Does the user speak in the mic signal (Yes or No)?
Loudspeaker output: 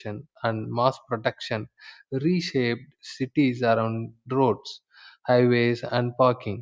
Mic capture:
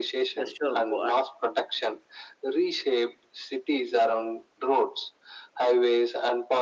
Yes